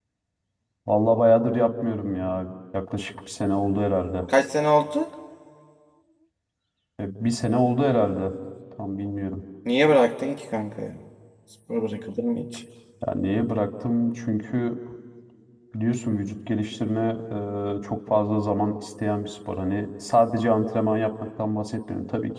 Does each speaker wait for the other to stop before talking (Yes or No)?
Yes